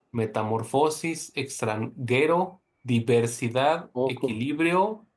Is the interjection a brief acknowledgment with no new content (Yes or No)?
Yes